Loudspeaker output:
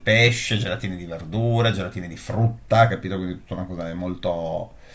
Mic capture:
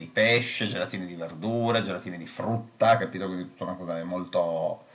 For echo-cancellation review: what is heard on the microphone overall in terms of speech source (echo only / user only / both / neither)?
echo only